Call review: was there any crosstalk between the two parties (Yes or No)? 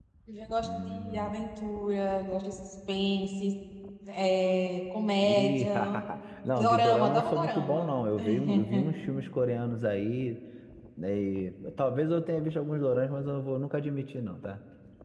Yes